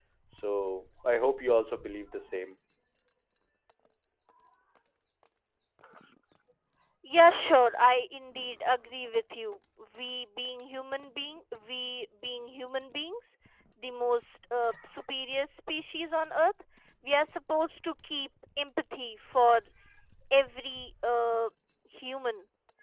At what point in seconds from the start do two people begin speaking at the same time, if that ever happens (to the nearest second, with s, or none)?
none